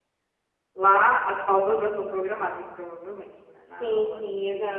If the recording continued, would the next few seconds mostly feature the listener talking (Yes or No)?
Yes